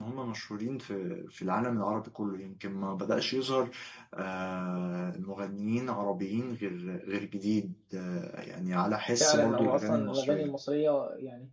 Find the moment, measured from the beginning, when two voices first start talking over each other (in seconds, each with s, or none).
9.2 s